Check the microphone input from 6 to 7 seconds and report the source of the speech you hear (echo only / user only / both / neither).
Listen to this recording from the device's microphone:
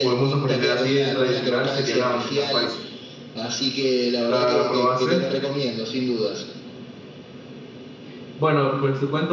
echo only